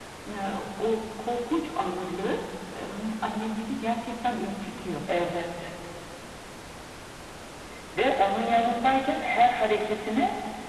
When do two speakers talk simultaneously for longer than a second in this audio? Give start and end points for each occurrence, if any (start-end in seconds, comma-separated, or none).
none